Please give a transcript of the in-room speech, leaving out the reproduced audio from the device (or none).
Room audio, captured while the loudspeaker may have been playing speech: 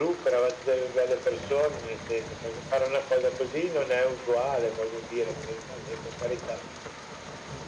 none